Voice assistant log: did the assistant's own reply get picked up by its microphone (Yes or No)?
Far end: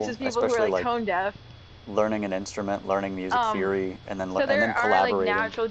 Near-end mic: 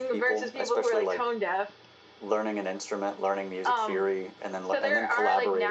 Yes